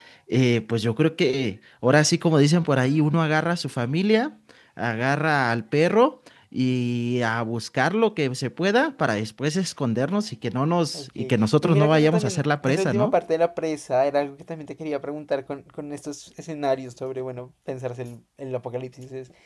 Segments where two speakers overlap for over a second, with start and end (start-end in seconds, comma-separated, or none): 11.6-13.1